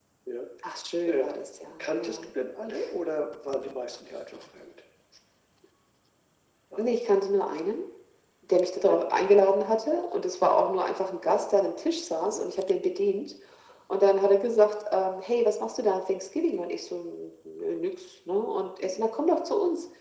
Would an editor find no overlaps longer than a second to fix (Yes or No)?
Yes